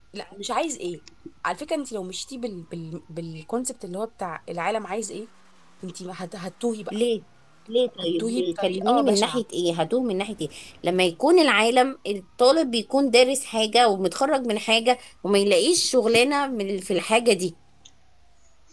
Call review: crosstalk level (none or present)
present